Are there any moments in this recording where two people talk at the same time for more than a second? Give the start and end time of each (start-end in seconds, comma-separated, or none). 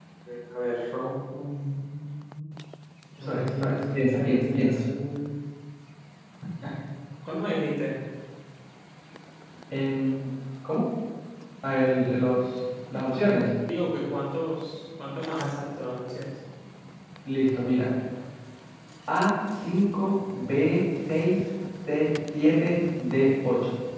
3.2-4.8